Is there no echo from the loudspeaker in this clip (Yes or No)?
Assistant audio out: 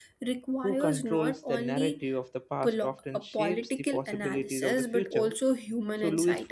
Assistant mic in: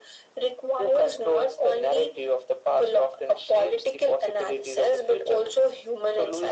No